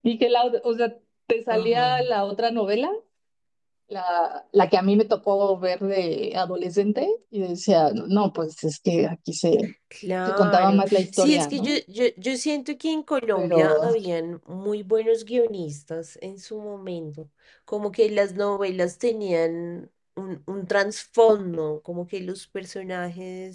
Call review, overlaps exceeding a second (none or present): present